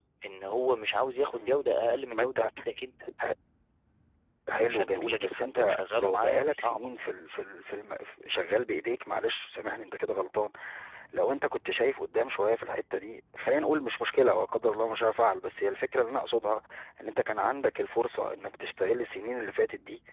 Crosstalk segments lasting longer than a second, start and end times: 4.5-6.9

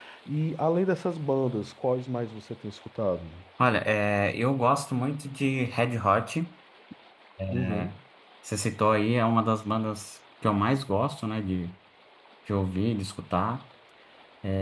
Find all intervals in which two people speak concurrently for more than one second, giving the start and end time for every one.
none

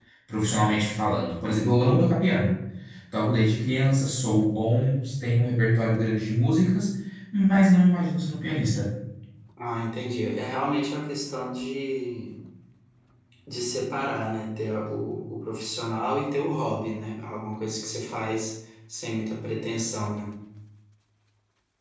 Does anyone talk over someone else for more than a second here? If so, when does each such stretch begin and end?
none

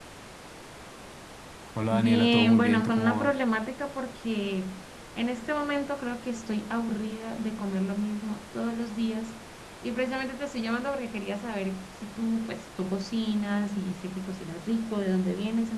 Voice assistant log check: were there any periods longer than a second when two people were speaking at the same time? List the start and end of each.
1.9-3.3

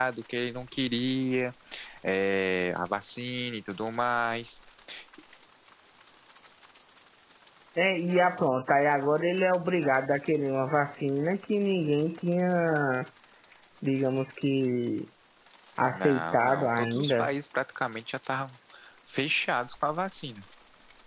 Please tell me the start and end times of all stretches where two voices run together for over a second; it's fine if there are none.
15.9-17.3

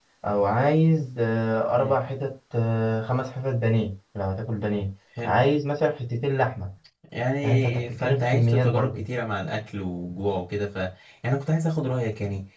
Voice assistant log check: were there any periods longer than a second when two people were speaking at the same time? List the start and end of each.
7.4-9.0

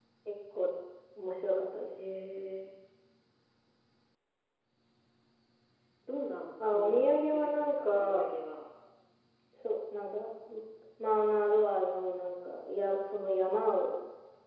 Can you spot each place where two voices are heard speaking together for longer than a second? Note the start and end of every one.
6.7-8.3

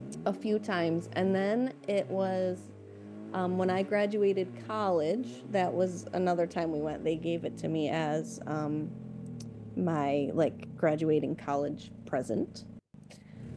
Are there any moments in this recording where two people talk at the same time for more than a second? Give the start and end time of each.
none

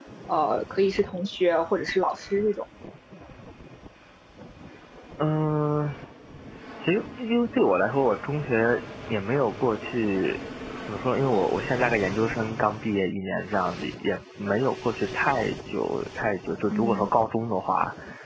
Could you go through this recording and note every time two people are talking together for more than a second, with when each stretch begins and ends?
none

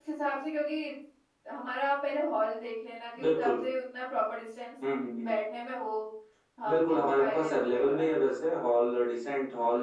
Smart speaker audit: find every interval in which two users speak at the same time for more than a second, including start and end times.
6.6-8.0

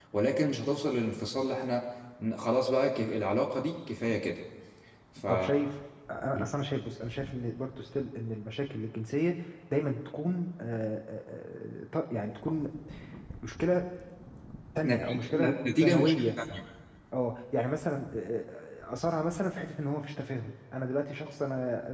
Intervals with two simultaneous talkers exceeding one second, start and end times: 14.8-16.3

